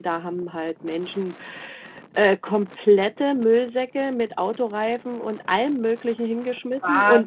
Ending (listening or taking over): listening